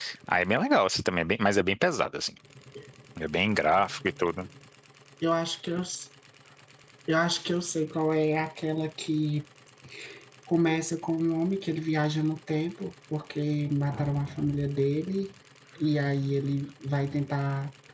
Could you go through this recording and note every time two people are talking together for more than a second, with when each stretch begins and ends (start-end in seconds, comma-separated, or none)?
none